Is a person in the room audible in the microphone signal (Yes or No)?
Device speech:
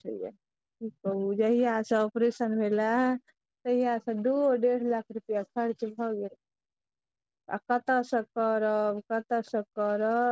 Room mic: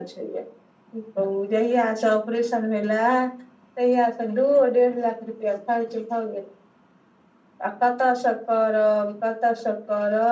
No